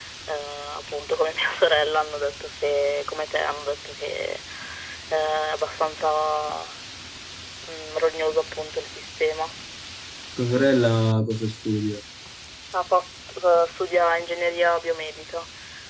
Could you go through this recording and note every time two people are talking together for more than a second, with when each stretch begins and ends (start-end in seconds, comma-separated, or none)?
none